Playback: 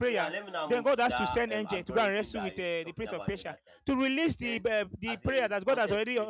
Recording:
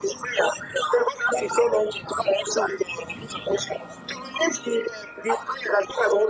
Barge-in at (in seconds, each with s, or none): none